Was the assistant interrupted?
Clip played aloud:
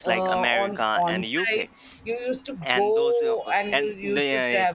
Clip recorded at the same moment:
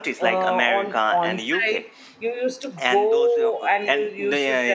No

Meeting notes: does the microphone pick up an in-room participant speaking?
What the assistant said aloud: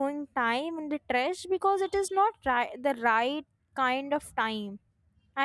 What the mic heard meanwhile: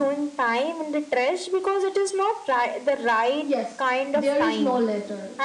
Yes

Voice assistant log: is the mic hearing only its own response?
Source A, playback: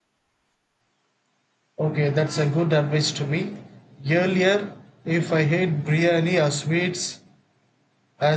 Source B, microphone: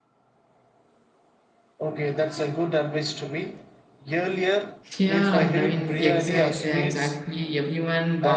No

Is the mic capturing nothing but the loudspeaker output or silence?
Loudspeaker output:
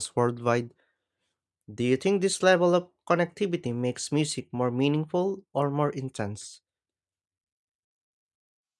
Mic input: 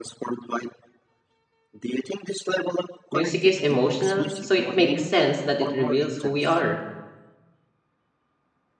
No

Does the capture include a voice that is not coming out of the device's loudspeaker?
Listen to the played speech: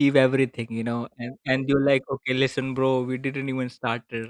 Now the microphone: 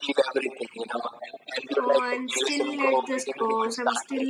Yes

